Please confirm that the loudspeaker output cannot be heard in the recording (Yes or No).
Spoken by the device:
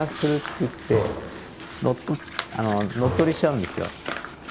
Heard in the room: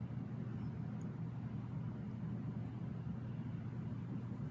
Yes